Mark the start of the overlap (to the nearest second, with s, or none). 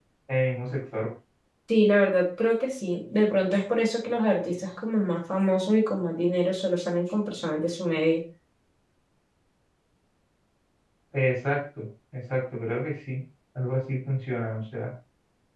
none